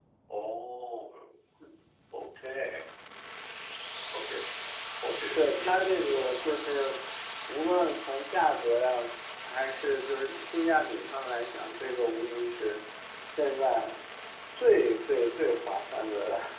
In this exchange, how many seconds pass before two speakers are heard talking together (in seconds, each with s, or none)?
5.3 s